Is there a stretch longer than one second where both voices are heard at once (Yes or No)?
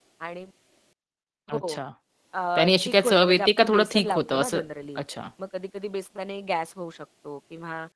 Yes